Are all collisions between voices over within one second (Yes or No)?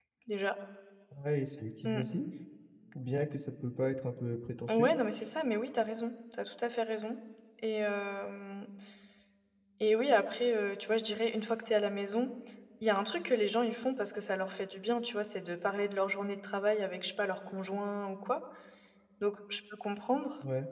Yes